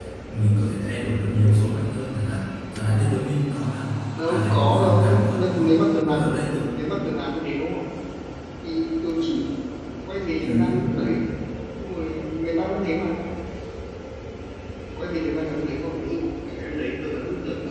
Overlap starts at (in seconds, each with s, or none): 4.3 s